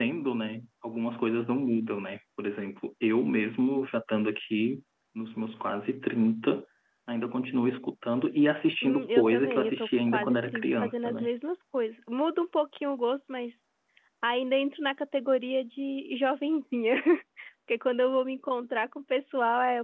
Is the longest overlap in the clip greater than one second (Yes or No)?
Yes